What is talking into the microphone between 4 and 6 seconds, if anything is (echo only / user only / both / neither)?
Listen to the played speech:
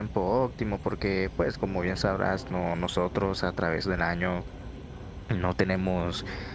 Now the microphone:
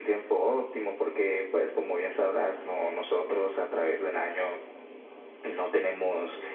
echo only